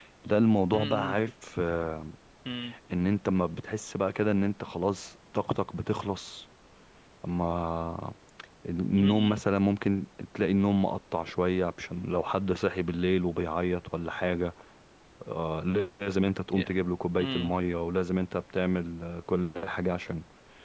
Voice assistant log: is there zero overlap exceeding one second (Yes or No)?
Yes